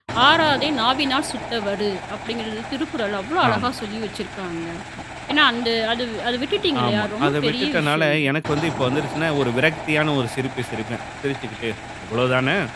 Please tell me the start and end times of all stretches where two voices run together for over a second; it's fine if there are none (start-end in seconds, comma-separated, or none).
6.8-8.2